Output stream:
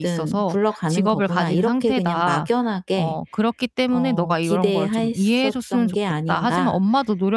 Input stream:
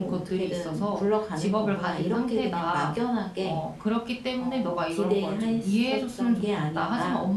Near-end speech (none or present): none